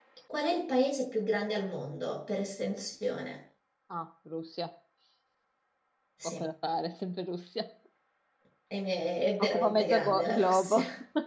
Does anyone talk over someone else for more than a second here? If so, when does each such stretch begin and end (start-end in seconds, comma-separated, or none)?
9.4-10.8